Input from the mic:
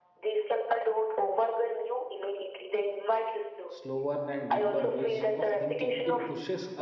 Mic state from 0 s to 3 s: echo only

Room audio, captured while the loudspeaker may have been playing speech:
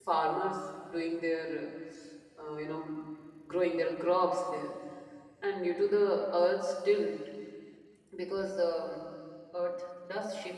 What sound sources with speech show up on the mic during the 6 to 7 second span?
user only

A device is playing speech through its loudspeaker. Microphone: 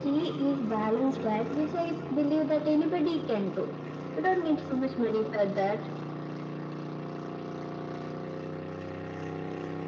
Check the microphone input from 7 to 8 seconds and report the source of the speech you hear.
neither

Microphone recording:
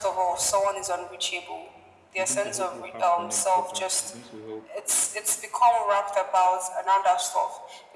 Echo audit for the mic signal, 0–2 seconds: echo only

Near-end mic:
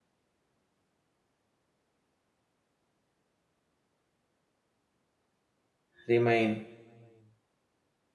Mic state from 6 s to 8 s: user only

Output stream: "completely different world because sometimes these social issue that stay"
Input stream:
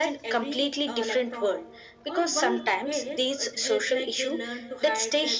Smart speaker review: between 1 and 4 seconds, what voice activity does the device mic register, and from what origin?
both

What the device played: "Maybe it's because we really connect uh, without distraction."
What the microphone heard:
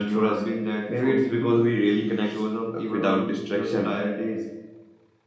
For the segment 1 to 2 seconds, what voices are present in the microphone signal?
both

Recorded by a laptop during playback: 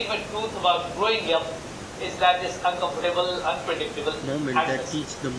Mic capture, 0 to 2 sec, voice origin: echo only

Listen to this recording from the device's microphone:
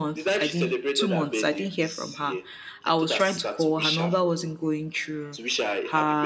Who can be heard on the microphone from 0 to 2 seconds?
both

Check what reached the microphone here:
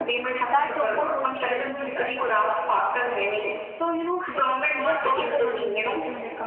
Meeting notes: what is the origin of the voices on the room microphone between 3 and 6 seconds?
both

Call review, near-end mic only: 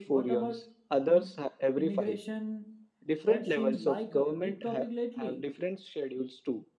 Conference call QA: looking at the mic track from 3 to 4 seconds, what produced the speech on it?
both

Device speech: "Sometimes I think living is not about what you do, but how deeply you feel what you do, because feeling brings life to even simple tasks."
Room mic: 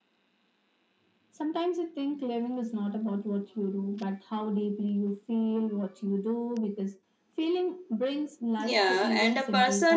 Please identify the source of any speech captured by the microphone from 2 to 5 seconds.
echo only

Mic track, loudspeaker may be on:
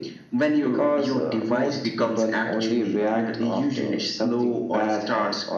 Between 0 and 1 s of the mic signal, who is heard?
echo only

